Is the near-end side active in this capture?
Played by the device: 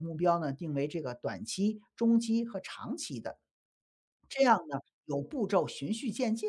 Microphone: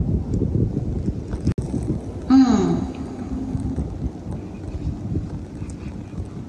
Yes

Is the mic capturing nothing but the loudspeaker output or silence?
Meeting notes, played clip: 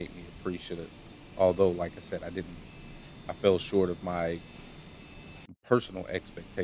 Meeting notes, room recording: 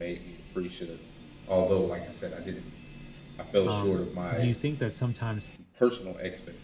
No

